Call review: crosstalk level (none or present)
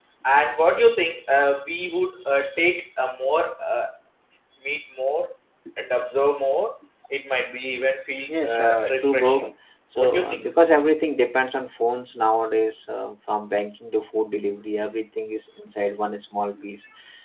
present